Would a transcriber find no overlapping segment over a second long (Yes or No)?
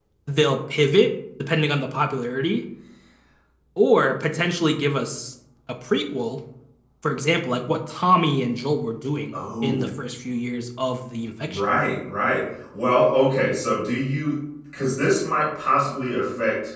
Yes